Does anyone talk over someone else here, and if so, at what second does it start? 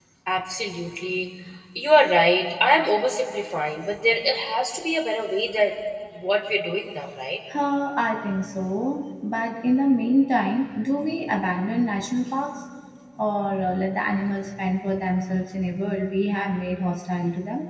none

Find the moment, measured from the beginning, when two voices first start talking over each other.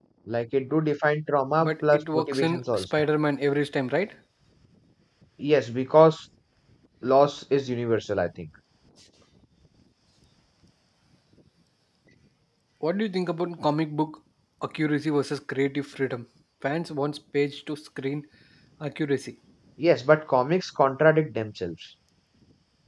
1.6 s

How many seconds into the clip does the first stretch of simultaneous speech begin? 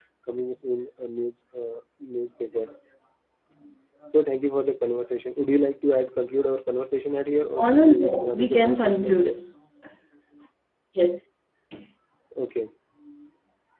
7.6 s

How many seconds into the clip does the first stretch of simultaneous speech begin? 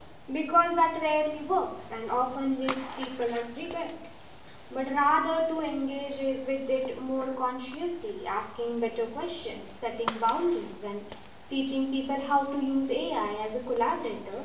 none

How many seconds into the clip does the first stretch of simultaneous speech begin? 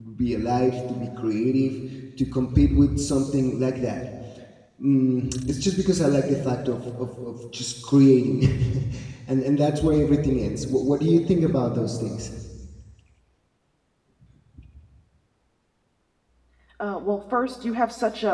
none

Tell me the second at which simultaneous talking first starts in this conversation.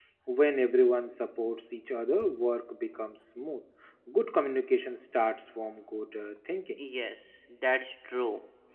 none

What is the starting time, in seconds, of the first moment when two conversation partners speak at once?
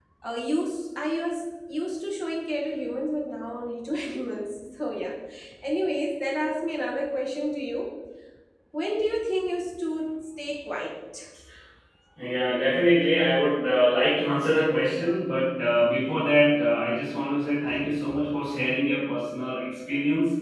none

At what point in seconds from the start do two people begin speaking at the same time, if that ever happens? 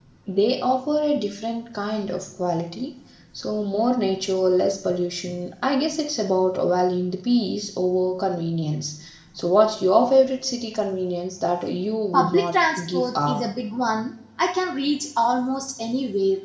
12.1 s

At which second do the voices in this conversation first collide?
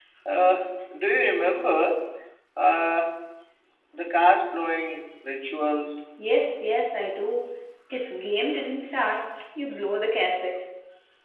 none

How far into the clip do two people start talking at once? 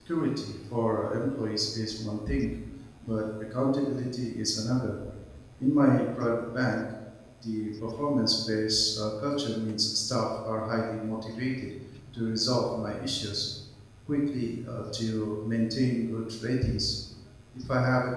none

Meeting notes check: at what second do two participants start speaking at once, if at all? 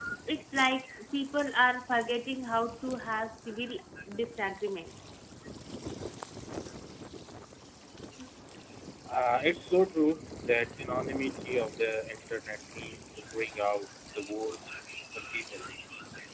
none

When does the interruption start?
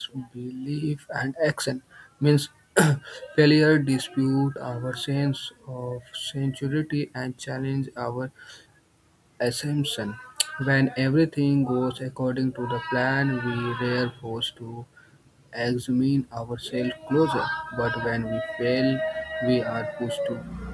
none

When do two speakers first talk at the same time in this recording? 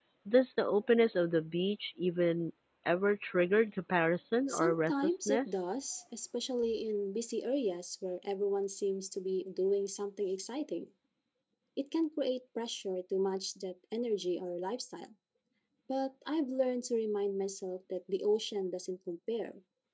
4.5 s

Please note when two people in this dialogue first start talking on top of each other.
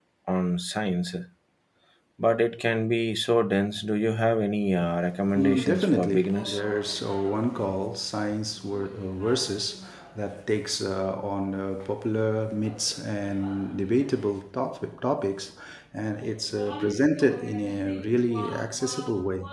5.3 s

